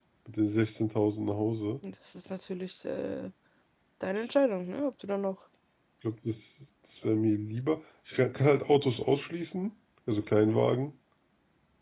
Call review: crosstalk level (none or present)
none